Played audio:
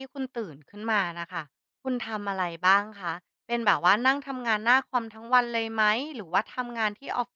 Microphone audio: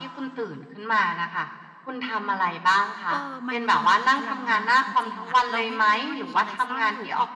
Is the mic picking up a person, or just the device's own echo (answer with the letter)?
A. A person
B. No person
A